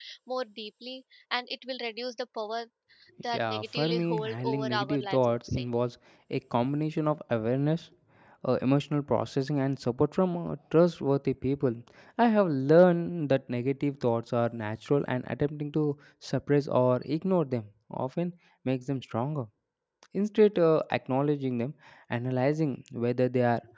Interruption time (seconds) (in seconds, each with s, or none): 3.3 s